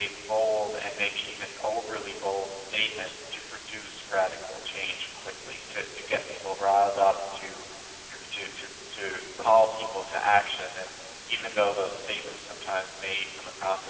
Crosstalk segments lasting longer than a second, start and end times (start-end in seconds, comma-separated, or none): none